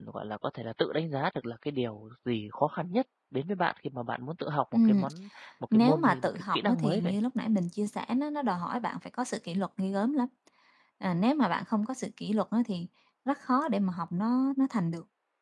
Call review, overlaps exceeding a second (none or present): present